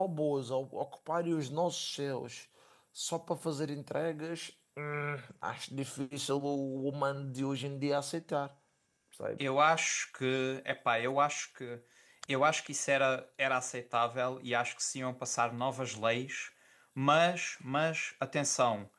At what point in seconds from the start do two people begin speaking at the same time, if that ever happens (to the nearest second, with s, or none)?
none